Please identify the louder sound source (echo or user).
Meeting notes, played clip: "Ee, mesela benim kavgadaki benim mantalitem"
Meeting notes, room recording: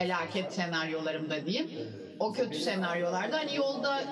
user